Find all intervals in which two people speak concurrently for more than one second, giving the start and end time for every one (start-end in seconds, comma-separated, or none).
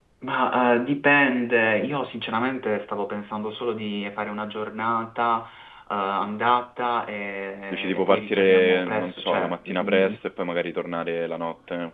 7.7-10.1